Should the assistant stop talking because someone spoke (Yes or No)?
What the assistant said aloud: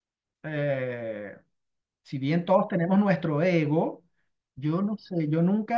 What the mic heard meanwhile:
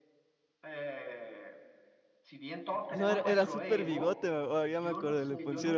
Yes